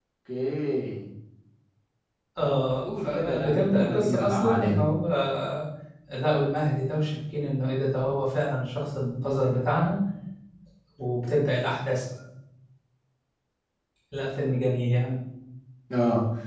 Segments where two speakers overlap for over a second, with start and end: 2.4-4.8

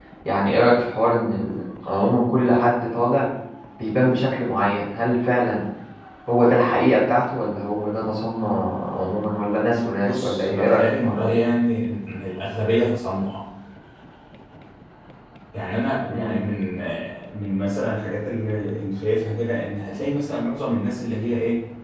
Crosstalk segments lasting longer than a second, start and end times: 10.0-11.2

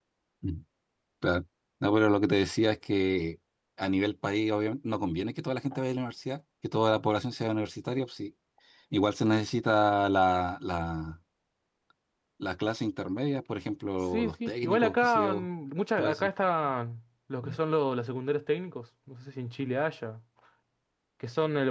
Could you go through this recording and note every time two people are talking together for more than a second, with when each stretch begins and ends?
14.1-15.5

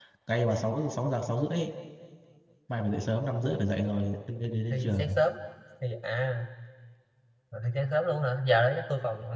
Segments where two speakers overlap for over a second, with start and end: none

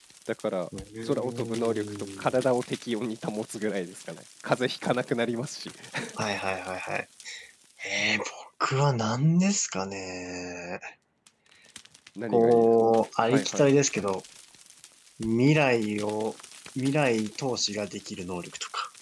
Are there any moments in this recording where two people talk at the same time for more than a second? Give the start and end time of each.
1.1-2.4

